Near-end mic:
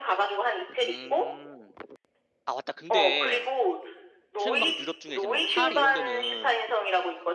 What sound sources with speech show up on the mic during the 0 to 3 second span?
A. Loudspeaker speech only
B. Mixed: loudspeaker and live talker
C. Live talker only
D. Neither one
B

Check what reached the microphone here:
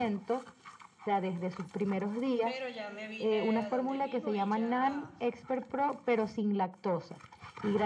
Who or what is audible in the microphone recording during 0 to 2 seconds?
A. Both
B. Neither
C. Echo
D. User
C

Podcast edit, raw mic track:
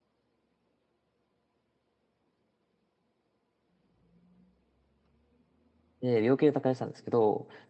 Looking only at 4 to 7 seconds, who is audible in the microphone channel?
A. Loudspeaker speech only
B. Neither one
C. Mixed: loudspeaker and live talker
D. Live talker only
D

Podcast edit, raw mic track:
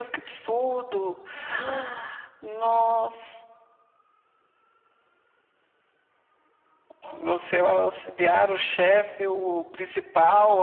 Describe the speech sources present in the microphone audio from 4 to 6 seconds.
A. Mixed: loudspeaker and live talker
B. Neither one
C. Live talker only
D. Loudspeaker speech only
B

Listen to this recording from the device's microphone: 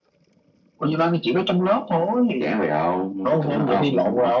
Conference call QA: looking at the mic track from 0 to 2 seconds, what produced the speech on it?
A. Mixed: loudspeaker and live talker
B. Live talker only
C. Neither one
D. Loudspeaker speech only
D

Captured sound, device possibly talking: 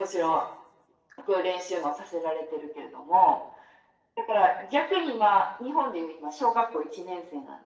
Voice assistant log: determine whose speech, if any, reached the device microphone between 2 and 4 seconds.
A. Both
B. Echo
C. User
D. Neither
B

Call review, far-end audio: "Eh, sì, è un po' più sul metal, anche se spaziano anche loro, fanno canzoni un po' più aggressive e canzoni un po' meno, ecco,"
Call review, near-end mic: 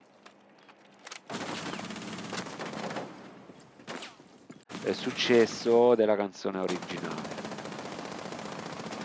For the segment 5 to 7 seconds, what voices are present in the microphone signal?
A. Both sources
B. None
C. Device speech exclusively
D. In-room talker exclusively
D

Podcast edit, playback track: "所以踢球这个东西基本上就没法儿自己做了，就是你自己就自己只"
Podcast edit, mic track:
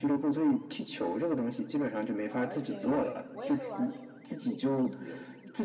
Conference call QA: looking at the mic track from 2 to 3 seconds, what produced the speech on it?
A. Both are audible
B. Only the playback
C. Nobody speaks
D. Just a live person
A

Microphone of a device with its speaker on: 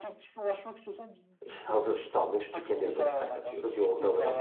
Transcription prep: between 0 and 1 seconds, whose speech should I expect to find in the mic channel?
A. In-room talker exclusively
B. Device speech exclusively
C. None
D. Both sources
B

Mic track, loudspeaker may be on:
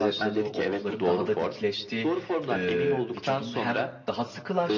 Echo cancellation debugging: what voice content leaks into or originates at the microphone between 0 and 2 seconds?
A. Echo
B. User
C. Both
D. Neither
C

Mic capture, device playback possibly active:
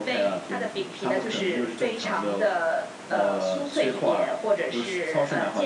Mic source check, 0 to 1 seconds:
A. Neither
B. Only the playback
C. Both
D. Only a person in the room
B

